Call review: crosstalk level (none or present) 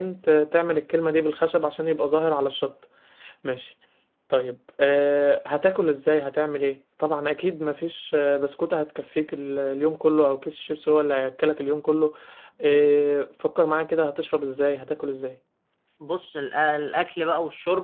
none